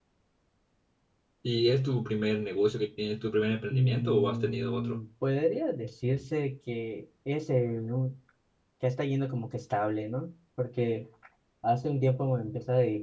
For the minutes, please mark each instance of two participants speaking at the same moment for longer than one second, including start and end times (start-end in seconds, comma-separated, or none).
3.7-5.0